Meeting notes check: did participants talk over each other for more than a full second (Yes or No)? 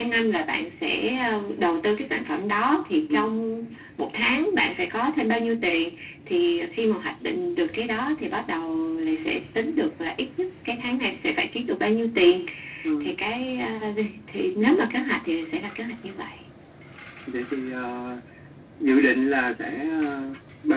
No